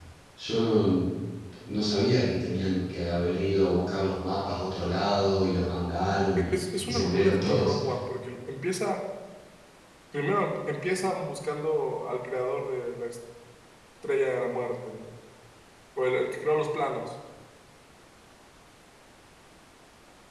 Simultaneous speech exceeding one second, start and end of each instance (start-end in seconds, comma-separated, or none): 6.5-7.7